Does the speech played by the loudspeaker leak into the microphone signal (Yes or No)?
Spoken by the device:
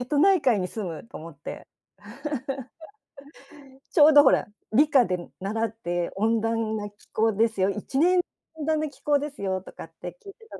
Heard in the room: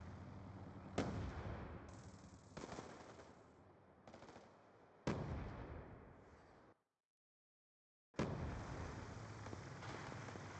No